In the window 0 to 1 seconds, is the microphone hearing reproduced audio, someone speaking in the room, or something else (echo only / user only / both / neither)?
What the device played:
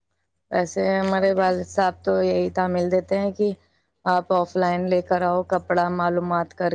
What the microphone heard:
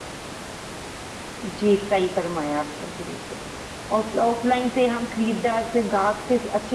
neither